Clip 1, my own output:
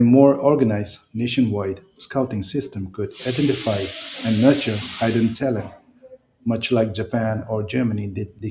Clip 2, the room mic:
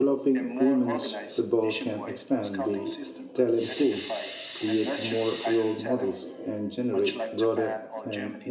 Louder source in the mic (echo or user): user